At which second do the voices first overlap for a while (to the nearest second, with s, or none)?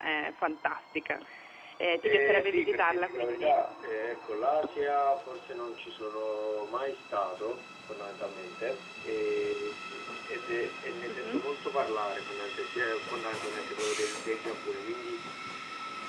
2 s